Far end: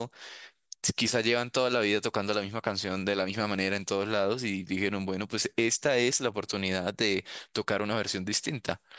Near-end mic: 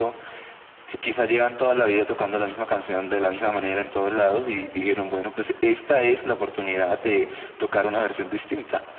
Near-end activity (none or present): none